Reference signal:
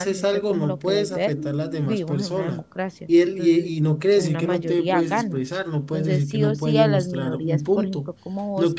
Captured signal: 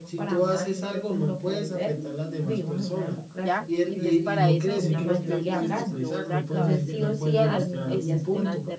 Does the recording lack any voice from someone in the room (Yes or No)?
No